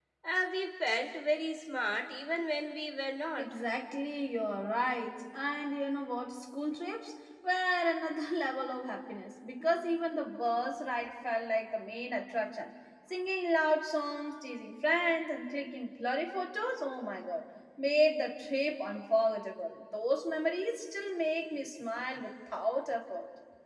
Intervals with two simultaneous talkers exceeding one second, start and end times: none

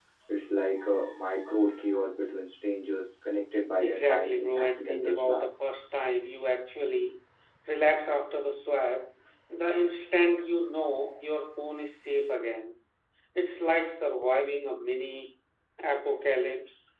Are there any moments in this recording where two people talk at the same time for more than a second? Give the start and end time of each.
3.8-5.5

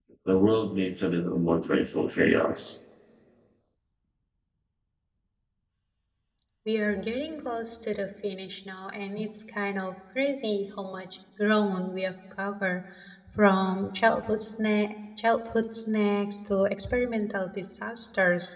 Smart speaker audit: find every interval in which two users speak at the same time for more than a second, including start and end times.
none

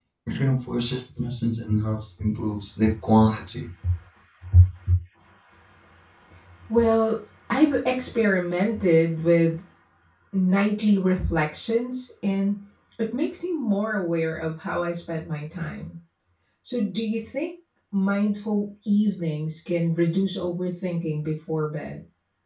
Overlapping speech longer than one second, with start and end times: none

